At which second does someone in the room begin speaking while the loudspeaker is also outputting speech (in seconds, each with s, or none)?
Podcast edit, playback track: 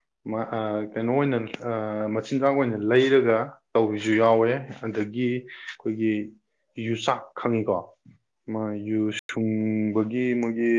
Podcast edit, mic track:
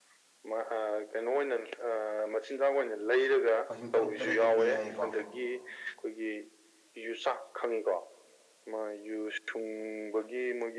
3.6 s